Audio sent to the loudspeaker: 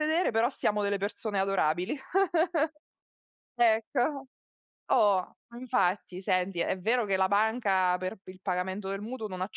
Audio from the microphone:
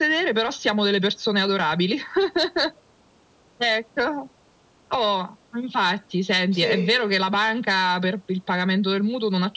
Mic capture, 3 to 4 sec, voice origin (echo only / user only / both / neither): echo only